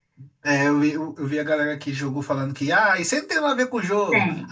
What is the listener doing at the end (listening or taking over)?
listening